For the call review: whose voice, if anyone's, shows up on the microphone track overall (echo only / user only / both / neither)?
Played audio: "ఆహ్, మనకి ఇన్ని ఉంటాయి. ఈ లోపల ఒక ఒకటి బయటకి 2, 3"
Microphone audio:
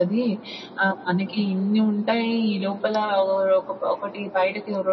echo only